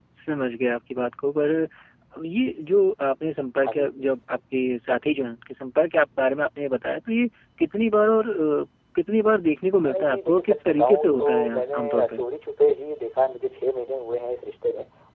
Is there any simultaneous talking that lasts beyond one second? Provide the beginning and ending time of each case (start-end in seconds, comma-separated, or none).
9.9-12.2